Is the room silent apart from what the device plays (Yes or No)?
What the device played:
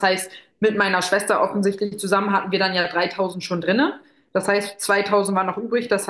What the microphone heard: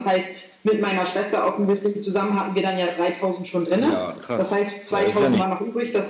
No